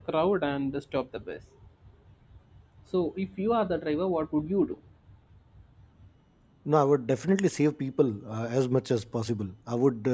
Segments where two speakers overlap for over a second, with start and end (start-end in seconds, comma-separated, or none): none